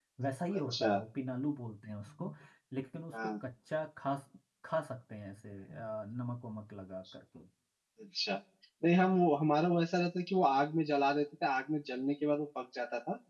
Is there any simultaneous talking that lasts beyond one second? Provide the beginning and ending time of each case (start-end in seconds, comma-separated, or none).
none